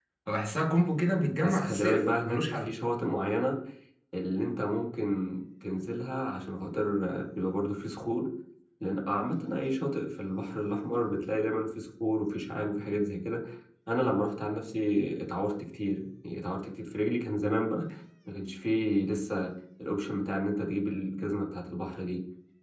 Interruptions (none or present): present